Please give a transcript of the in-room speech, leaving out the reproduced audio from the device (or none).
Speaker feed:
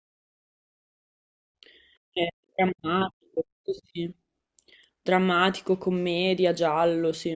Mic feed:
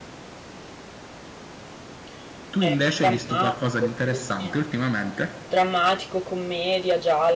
Tu invece hai visto qualcosa di interessante ultimamente?